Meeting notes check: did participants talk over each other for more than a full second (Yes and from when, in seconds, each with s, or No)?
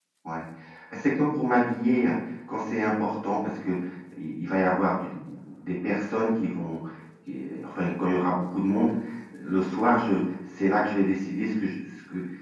No